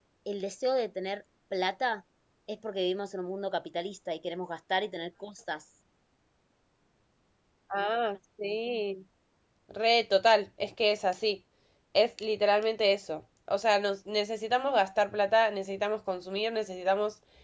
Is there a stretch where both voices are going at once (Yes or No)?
No